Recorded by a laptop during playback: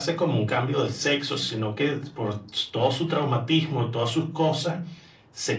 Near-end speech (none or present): none